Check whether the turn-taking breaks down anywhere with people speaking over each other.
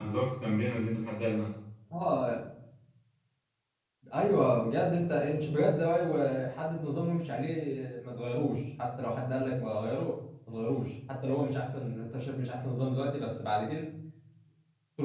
No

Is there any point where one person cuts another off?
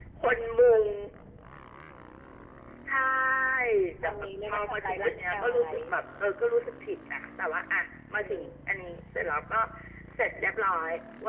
Yes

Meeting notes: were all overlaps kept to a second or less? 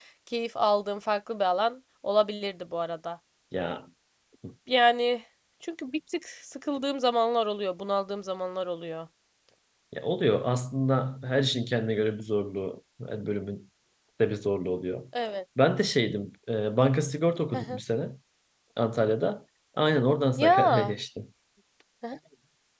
Yes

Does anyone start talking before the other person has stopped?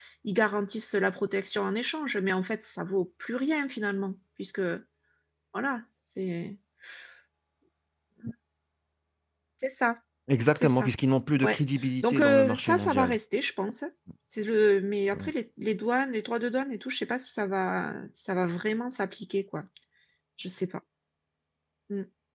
Yes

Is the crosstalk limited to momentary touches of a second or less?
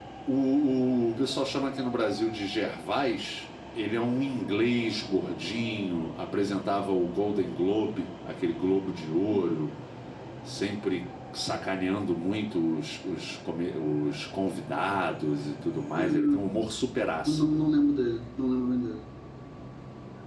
Yes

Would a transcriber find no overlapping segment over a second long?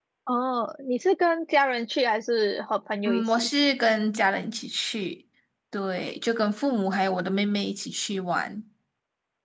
Yes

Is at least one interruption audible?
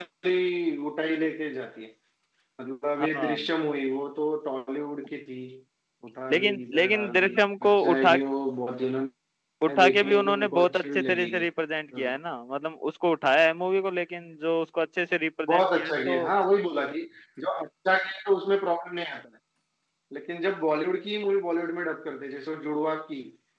Yes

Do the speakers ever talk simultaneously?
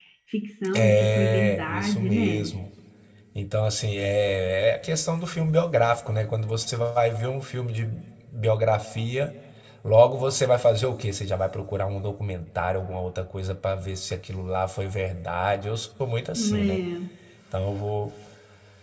Yes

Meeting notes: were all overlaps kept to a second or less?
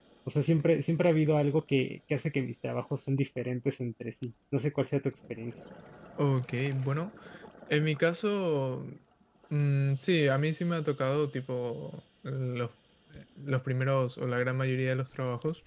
Yes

